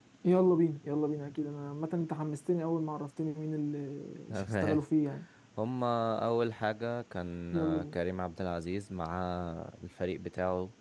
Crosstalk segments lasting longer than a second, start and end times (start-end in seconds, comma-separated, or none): none